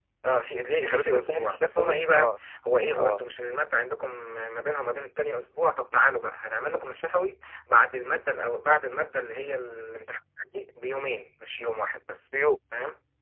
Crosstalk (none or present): present